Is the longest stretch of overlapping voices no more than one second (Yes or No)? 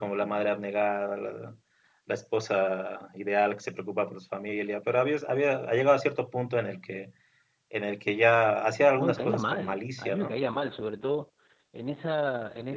No